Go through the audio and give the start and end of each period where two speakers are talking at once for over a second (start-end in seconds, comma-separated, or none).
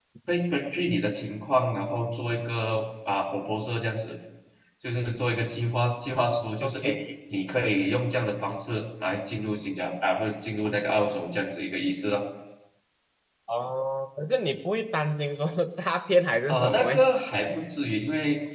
none